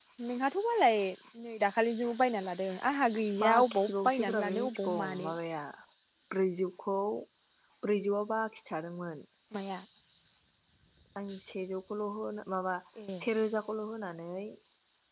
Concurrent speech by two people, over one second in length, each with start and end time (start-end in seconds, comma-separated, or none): 3.4-5.3